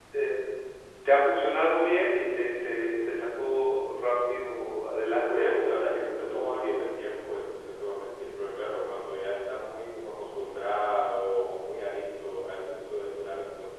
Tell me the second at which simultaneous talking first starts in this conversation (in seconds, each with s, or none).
5.3 s